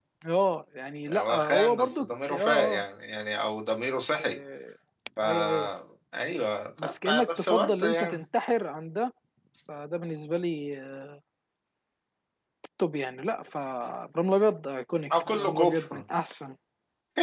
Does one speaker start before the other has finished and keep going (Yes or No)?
Yes